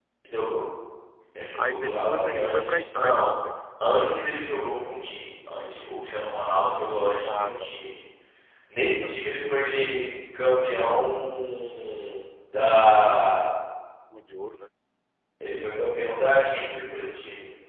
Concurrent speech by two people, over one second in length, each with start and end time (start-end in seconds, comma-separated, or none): 1.5-3.3